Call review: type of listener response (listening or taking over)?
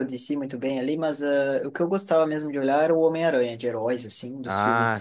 listening